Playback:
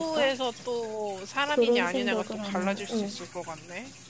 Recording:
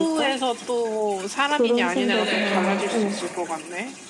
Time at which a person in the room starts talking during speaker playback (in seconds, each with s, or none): 1.9 s